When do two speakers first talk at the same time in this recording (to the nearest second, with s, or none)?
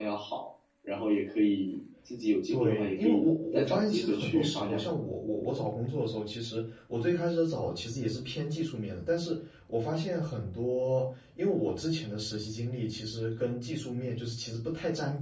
3 s